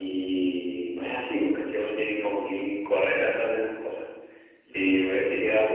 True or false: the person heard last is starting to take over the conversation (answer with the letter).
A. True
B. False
B